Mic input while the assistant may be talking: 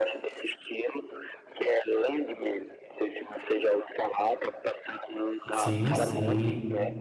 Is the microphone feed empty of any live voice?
No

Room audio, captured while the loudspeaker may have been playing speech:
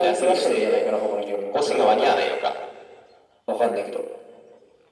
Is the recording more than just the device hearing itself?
No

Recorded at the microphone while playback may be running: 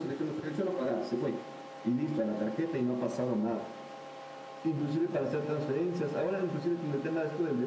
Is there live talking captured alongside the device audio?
No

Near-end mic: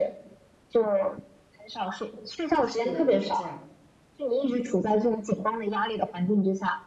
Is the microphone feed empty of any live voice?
No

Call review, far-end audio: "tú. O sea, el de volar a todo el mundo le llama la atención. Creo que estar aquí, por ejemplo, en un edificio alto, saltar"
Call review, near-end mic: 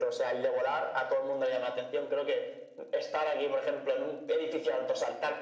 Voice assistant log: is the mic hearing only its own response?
Yes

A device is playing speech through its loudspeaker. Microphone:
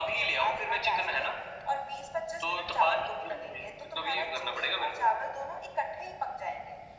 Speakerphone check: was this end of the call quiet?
Yes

